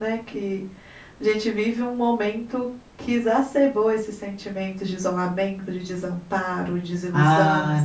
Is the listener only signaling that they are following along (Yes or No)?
No